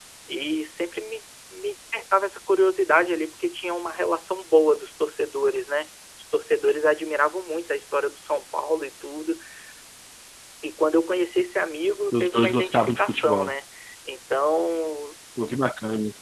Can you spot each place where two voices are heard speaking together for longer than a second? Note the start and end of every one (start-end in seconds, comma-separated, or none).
12.1-13.5